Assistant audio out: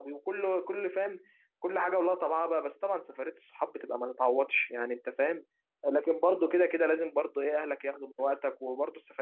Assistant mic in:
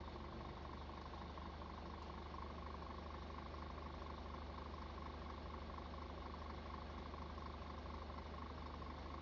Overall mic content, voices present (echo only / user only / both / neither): neither